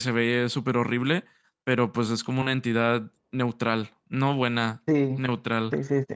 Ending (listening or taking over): taking over